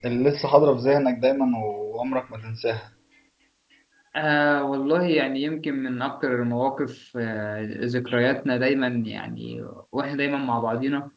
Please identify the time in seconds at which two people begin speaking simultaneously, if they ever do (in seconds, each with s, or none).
none